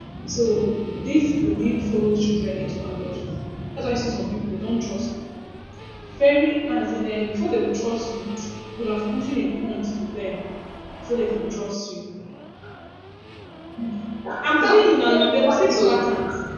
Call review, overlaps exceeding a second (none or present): present